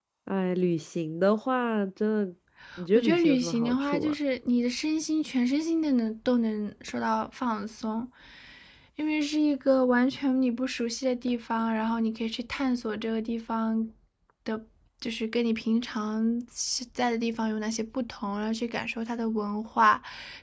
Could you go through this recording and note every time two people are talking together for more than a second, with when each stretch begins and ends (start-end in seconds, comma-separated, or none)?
2.9-4.1